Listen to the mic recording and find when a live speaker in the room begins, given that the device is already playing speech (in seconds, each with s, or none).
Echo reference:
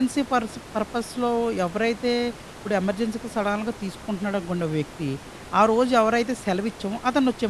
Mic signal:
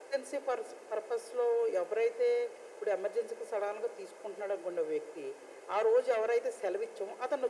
none